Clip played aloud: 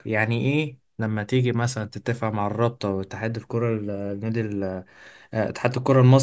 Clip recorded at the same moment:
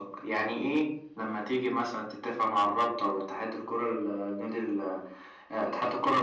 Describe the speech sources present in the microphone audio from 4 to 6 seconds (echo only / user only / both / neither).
echo only